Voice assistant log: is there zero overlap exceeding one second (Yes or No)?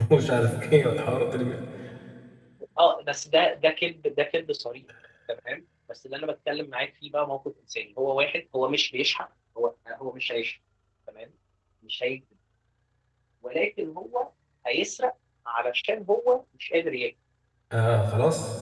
Yes